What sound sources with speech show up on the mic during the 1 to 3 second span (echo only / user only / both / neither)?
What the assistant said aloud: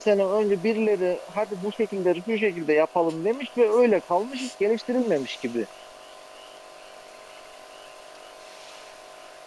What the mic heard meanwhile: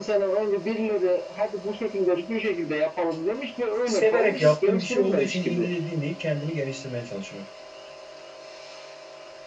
echo only